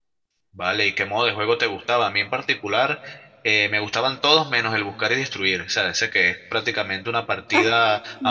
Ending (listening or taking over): taking over